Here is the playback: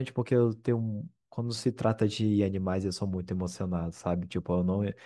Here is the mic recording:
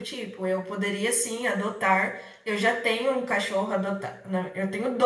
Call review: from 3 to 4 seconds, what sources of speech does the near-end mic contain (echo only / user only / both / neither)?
user only